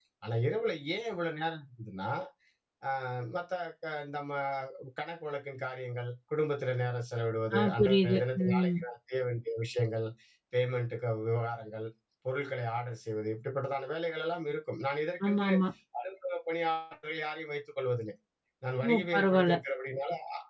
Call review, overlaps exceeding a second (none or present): present